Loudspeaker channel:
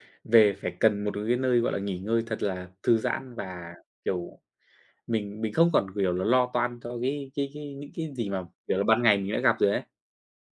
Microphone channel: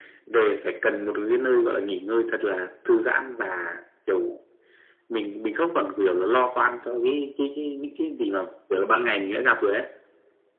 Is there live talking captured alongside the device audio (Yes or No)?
No